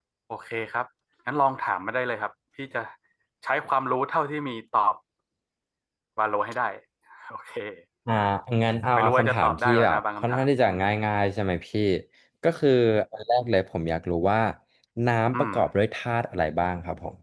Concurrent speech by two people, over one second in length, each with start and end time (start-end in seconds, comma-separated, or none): 9.0-10.7